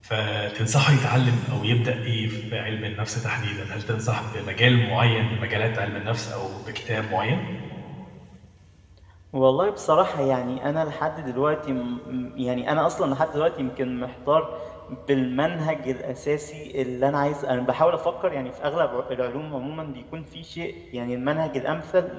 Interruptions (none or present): none